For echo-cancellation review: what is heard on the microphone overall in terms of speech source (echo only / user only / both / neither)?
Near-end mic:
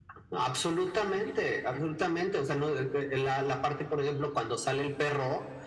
echo only